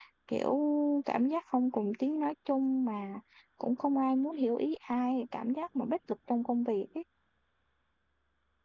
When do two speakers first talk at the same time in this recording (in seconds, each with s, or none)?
none